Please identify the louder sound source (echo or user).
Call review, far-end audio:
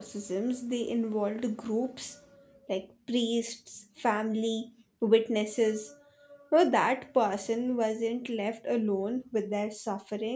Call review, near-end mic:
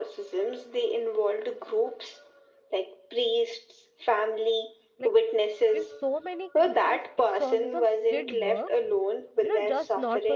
echo